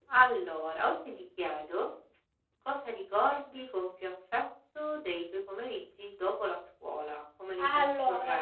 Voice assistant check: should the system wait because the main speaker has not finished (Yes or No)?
No